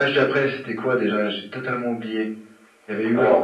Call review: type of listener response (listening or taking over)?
taking over